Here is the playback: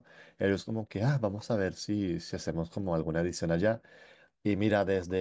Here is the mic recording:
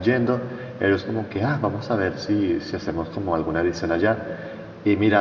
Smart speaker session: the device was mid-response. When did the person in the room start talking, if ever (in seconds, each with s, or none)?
none